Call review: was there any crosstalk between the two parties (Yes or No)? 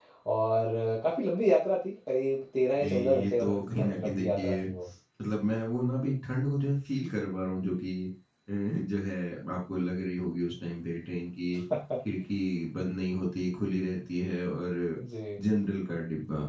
Yes